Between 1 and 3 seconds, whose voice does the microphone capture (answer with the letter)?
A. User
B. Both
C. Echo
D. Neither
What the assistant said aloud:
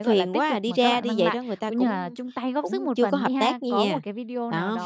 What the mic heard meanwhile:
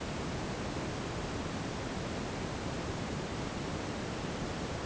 D